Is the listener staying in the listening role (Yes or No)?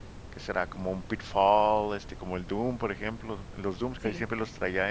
Yes